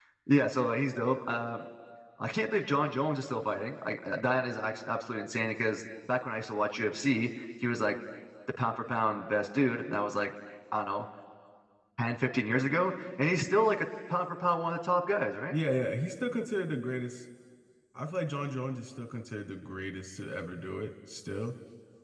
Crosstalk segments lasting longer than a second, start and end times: none

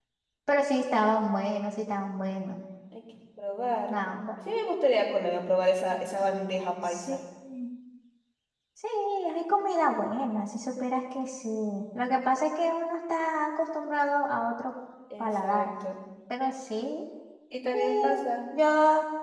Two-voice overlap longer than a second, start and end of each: none

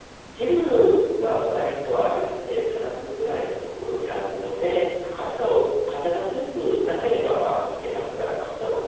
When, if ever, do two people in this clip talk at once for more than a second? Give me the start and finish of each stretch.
none

